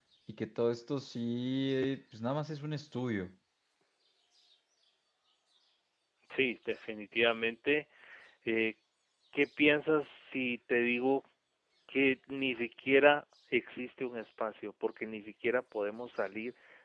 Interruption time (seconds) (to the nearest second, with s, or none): none